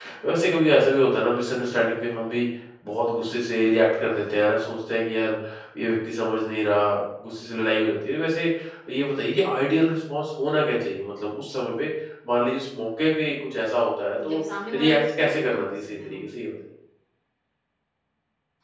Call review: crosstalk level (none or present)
present